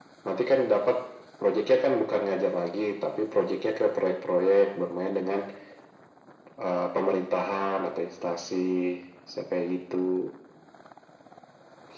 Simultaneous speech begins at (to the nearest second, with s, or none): none